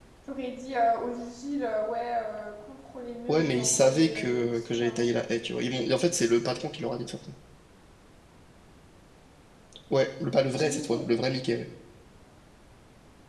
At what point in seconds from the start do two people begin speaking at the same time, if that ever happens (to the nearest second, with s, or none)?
3 s